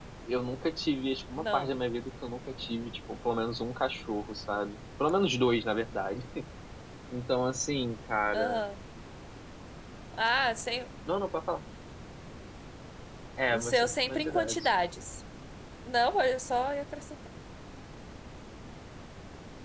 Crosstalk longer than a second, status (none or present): present